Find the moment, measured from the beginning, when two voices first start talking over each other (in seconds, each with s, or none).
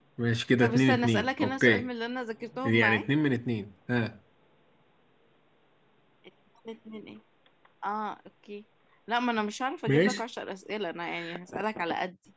0.6 s